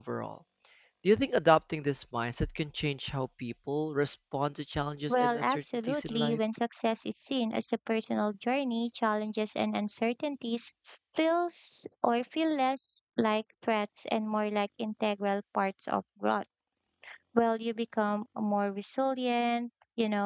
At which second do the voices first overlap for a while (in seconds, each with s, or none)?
5.1 s